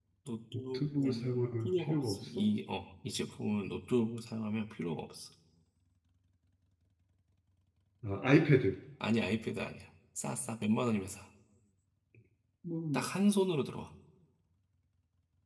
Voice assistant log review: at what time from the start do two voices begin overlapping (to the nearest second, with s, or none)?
1 s